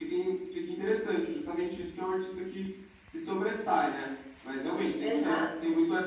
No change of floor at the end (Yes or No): Yes